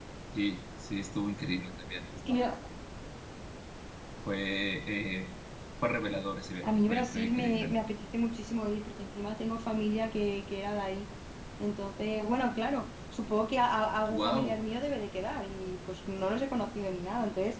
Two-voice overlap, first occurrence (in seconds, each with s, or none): 6.6 s